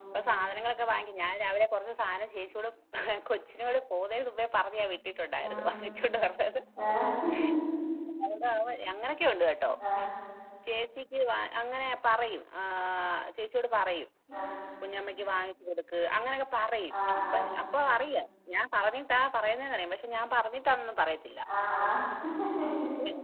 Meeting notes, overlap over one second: none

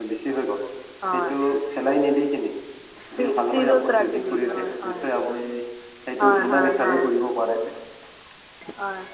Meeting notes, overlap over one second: present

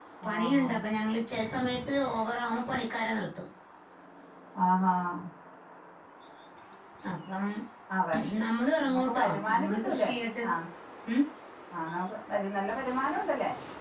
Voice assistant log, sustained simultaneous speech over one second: present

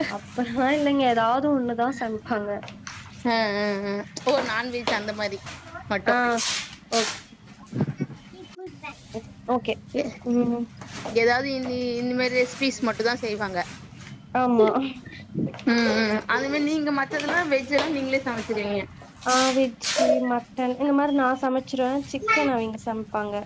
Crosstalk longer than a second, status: none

